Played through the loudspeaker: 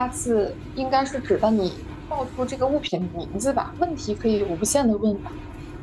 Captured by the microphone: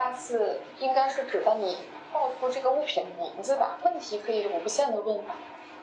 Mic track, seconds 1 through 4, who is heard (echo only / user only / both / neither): echo only